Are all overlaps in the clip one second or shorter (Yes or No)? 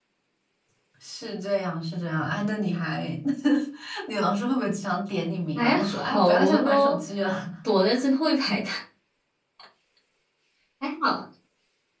No